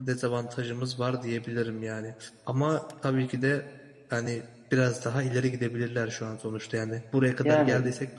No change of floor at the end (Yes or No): Yes